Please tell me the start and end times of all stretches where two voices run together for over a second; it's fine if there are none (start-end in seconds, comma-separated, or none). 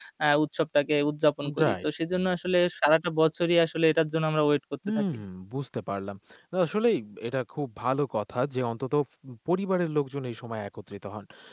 none